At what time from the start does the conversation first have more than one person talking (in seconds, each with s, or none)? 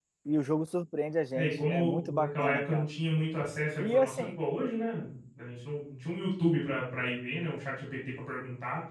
1.4 s